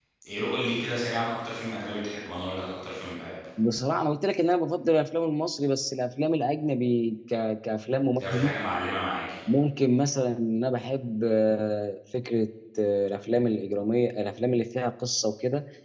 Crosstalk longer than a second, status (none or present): none